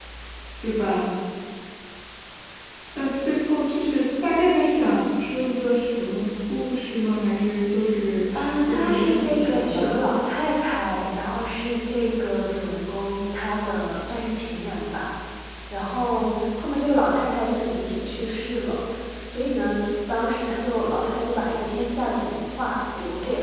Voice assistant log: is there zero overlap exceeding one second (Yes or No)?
No